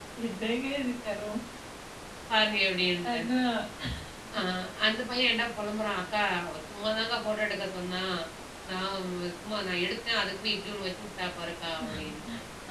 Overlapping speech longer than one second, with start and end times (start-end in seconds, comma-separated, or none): none